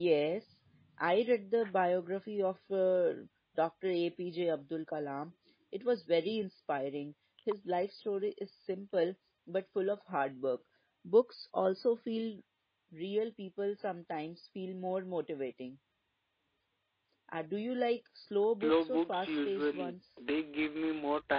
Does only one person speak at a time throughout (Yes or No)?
No